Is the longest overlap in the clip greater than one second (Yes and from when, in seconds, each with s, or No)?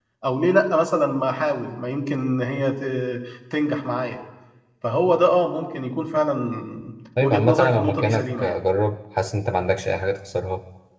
Yes, from 7.2 s